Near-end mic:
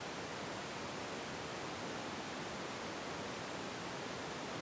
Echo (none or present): none